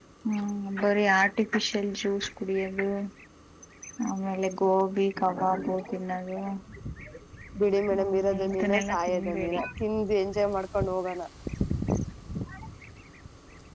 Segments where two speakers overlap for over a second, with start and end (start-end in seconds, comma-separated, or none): 7.9-9.6